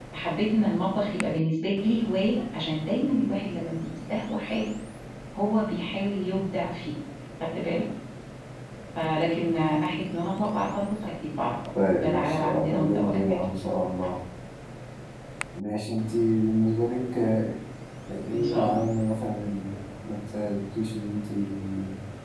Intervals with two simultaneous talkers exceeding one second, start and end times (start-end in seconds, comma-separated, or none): 11.9-13.4